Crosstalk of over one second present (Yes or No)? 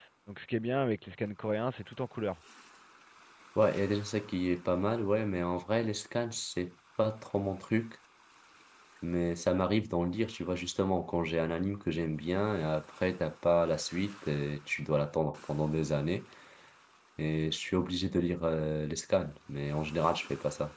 No